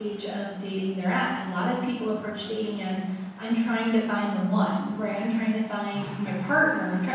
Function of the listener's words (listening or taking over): listening